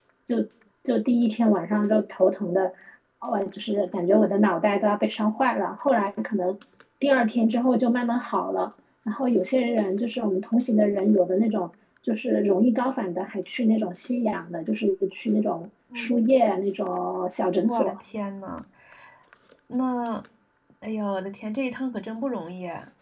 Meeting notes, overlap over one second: none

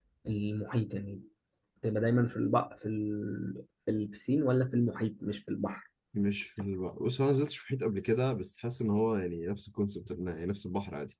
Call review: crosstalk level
none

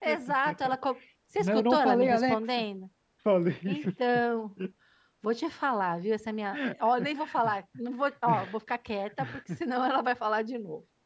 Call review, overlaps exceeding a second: present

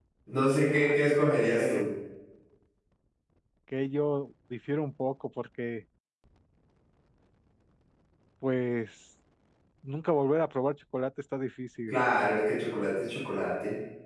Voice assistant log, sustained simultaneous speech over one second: present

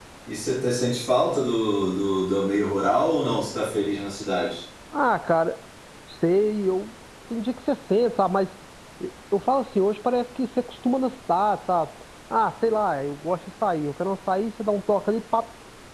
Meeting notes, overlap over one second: none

